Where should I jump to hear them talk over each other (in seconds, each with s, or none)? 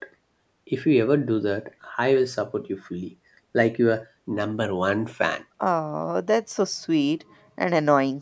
none